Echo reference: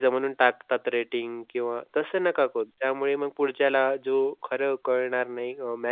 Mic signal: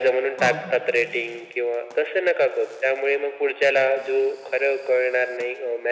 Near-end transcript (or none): हो, हो.